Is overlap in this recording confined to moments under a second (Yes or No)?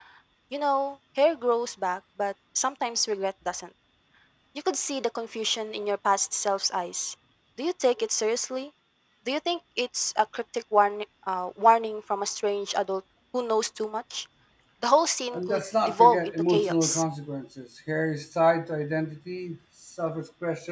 No